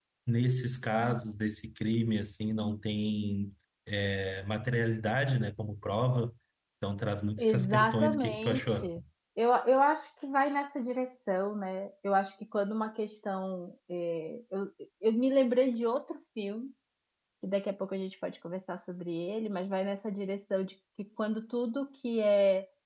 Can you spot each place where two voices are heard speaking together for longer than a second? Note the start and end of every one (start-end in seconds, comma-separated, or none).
7.4-8.9